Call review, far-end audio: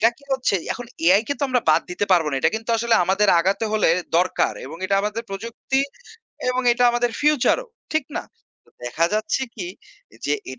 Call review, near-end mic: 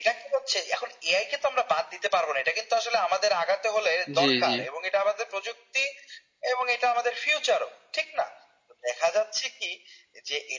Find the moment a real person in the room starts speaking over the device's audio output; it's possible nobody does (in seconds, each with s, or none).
4.2 s